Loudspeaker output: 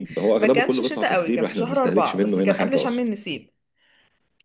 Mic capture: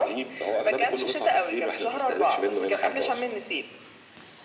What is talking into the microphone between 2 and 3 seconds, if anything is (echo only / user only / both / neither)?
echo only